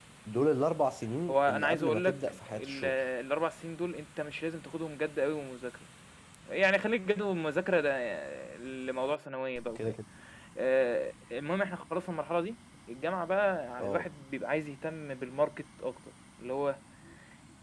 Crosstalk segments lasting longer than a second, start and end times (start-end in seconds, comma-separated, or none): 1.3-2.8